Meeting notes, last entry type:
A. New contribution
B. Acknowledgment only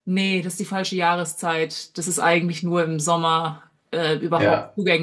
B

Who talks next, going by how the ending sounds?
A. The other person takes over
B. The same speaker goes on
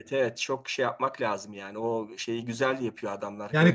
A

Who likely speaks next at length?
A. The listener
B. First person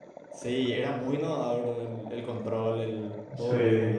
A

